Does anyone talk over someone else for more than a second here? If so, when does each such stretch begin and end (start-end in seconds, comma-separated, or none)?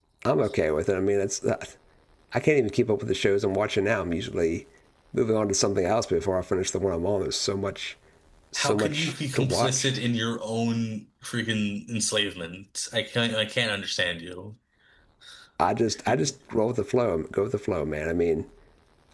8.6-9.9